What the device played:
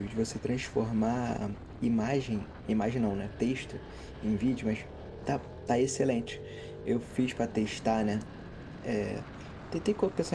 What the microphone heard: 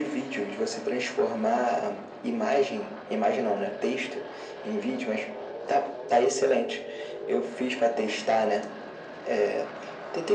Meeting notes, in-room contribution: none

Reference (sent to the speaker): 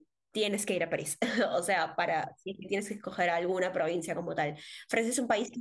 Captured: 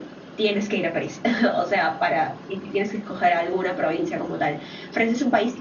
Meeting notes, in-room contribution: none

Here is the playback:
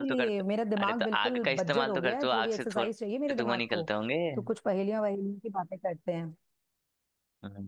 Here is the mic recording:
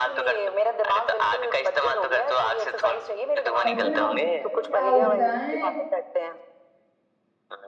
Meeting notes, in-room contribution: present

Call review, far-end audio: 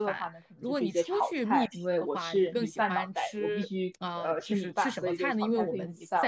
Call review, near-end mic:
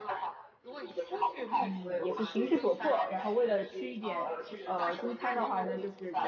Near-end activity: present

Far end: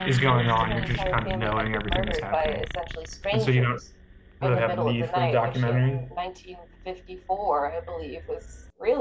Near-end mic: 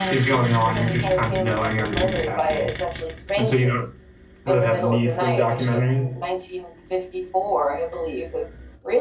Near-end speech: none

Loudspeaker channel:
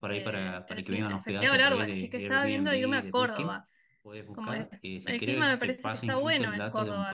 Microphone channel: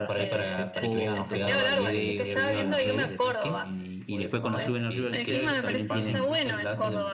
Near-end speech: present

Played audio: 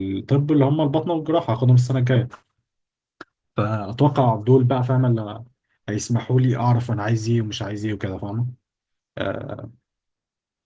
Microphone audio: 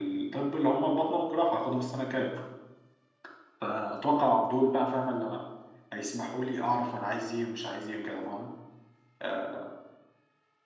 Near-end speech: none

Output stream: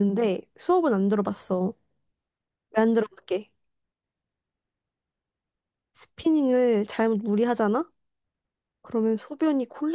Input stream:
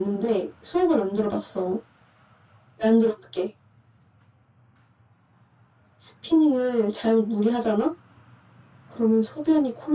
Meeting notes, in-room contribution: none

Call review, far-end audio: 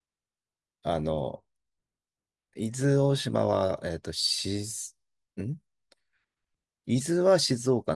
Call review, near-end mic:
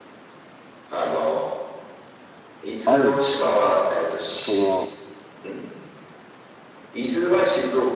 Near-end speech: present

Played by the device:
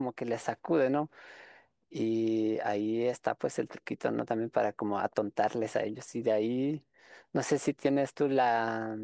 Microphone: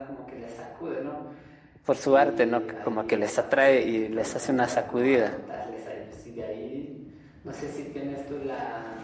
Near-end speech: present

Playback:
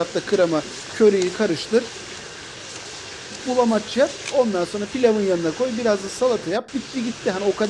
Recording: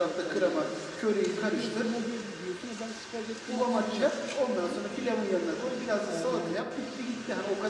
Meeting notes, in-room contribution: present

